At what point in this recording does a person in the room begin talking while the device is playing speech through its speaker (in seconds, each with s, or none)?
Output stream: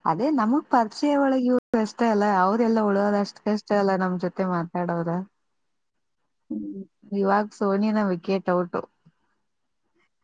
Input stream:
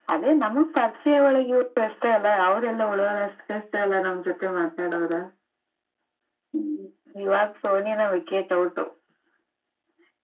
none